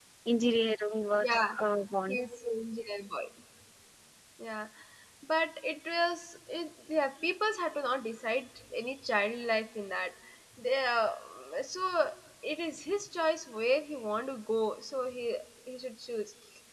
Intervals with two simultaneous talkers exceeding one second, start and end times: none

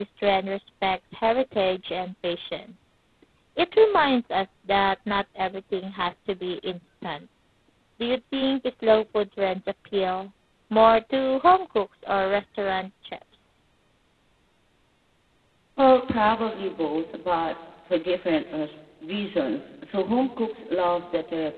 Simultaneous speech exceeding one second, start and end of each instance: none

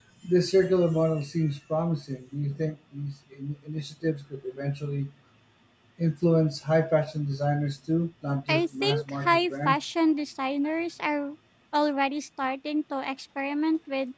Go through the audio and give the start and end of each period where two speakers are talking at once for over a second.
8.5-9.9

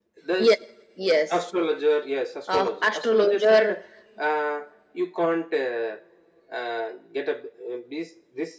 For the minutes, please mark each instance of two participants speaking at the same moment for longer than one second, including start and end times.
2.5-3.8

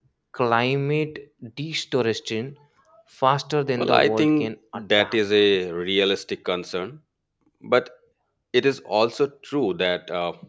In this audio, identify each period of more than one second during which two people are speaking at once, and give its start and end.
3.8-5.2

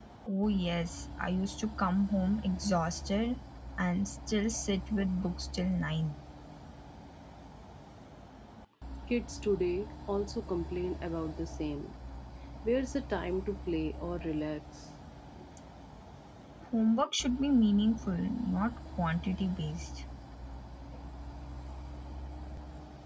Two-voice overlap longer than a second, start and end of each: none

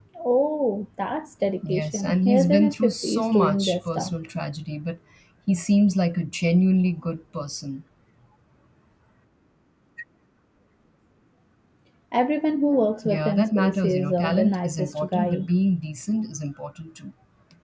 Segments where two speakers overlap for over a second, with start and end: 1.7-4.1, 13.0-15.5

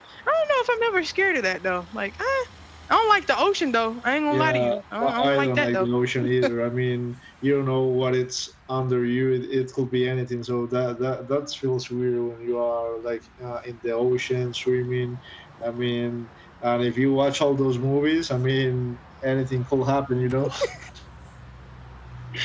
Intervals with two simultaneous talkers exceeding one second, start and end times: 4.3-5.9

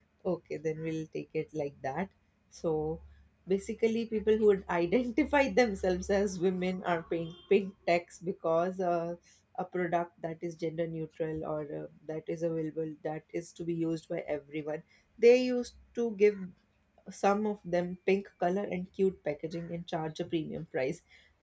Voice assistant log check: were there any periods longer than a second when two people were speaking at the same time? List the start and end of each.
none

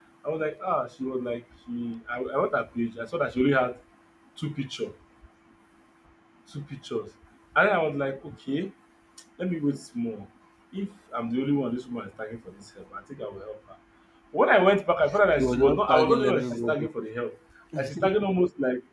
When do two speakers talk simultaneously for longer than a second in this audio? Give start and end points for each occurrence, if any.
15.4-16.9

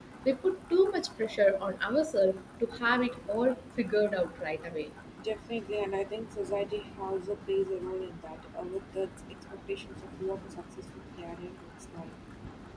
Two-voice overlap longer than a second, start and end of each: none

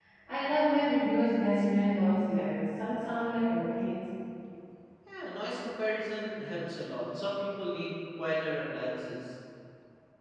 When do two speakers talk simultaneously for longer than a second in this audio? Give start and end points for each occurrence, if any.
none

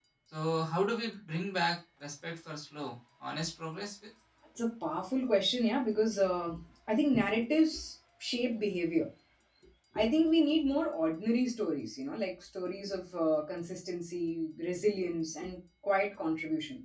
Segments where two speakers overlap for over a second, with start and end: none

